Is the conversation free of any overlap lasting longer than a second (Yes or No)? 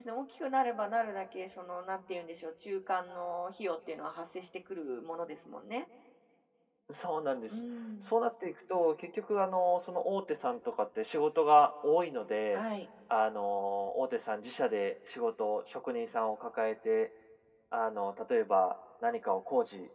Yes